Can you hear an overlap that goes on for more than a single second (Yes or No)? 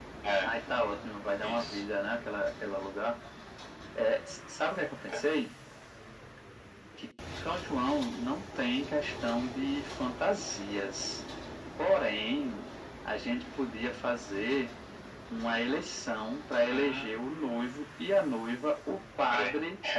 No